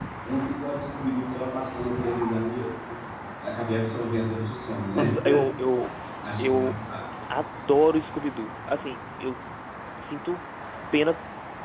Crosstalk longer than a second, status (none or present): none